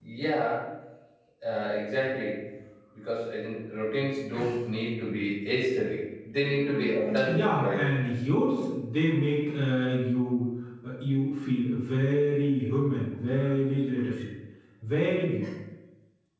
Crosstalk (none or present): present